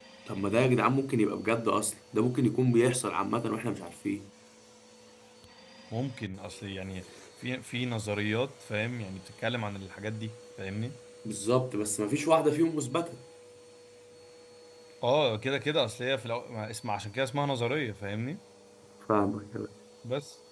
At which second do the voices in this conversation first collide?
none

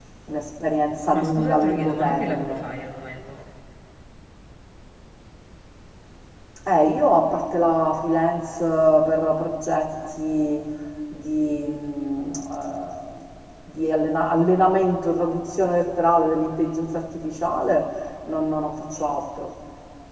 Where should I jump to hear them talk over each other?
1.1 s

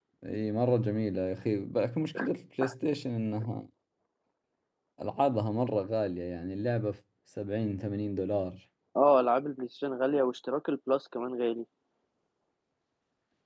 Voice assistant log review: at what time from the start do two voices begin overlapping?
none

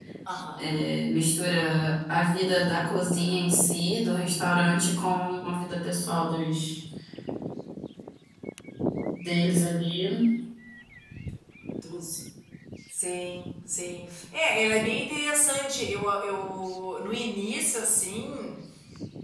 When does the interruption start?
none

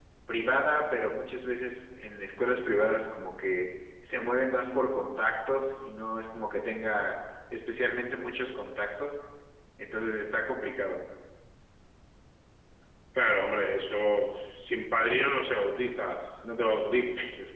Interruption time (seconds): none

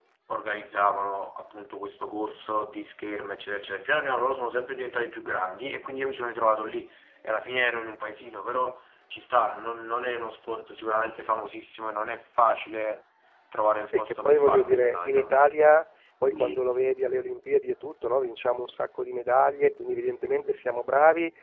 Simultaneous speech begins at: 13.9 s

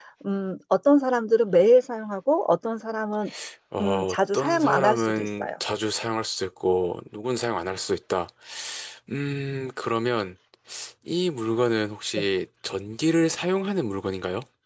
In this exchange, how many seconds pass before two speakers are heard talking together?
3.8 s

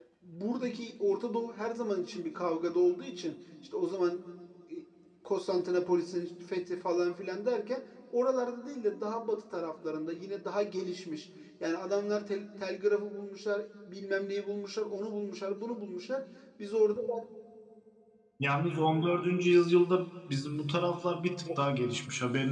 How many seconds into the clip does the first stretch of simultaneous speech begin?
none

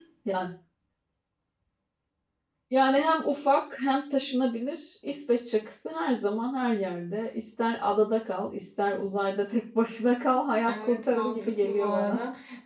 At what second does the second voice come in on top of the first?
10.7 s

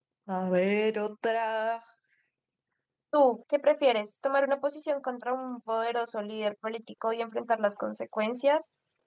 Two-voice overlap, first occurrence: none

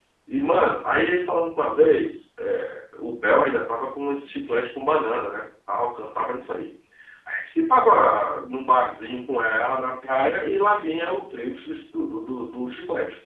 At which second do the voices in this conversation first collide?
none

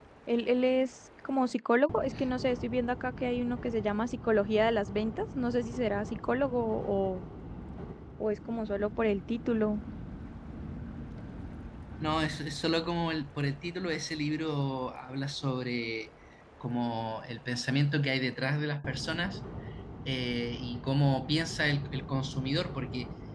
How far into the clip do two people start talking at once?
none

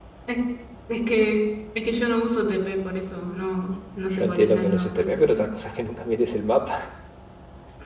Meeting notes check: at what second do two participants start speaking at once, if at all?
4.1 s

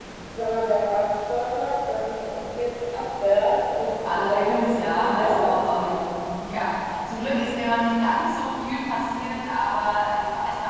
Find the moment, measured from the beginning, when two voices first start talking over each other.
3.9 s

